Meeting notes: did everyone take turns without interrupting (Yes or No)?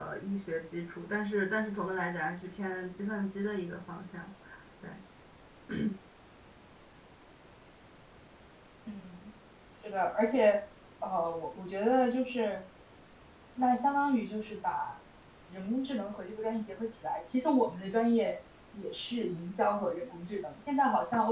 Yes